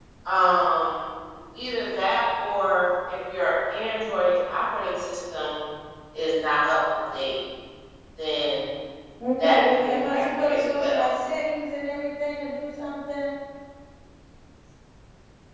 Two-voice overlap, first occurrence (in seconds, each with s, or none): 9.4 s